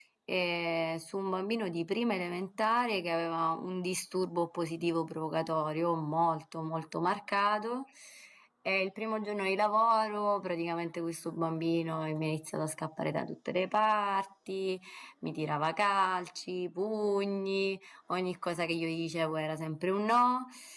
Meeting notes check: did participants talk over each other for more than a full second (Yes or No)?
No